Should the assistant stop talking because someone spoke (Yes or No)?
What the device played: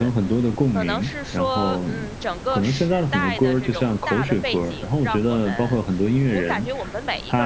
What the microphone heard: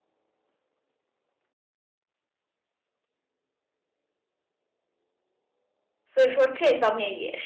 Yes